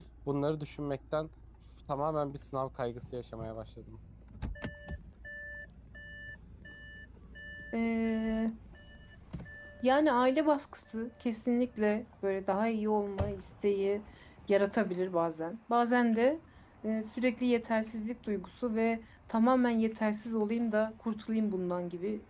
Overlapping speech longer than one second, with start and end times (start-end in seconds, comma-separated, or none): none